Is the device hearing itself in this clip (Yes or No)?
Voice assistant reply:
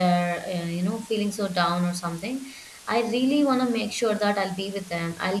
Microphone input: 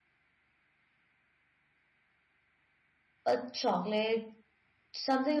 No